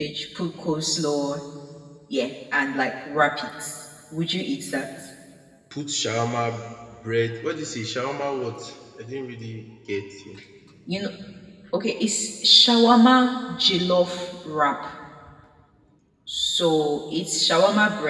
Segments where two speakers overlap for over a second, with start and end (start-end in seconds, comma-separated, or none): none